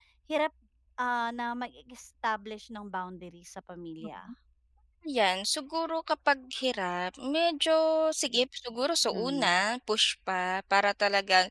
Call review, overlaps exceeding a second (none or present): none